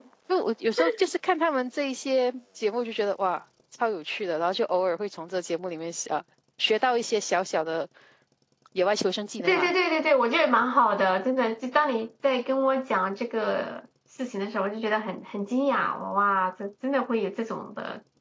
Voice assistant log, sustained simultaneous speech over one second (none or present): none